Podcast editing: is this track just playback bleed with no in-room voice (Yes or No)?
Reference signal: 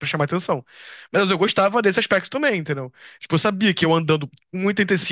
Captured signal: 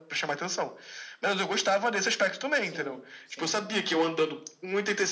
No